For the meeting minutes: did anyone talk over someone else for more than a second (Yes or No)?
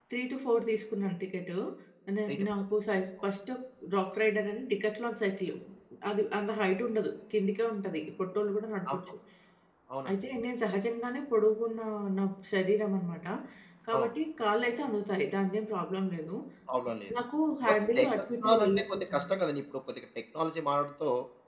Yes